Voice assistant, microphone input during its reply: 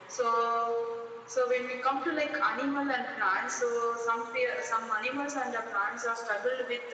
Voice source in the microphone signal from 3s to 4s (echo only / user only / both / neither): echo only